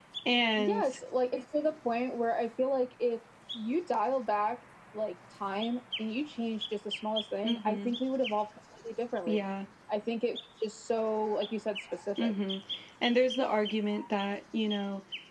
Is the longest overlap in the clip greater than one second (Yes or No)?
No